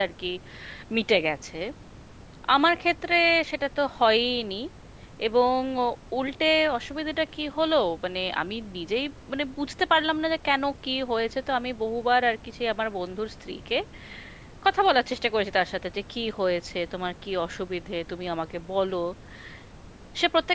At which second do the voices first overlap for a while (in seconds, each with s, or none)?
none